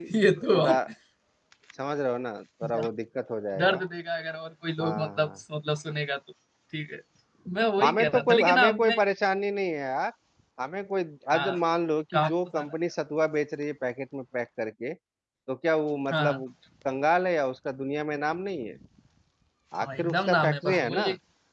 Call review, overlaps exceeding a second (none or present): present